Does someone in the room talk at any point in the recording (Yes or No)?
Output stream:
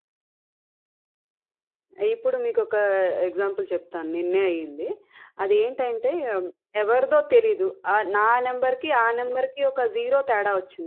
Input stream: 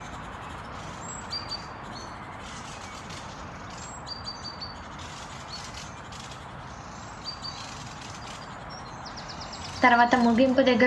Yes